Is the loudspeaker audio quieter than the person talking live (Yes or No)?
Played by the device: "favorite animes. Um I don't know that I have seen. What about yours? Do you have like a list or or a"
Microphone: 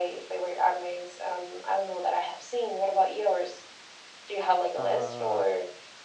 No